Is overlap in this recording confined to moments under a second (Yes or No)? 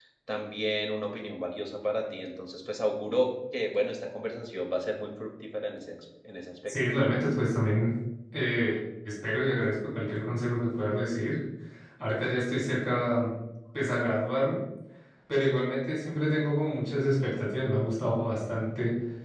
Yes